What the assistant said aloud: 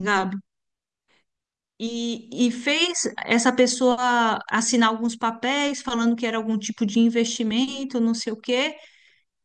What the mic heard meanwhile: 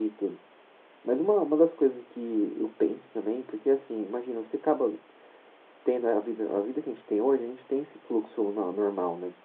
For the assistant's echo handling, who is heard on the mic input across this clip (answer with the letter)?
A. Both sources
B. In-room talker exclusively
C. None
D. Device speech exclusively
B